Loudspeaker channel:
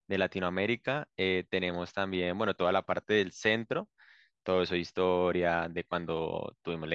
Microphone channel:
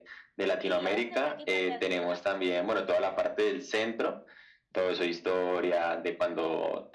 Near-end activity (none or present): present